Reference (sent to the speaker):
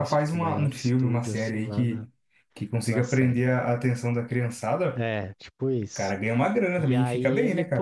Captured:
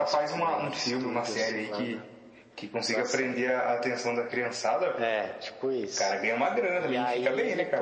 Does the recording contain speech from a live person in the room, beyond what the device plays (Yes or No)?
No